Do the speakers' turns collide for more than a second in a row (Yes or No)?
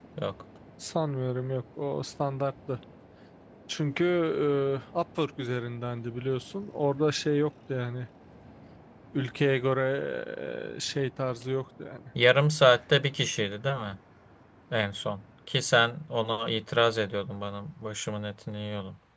No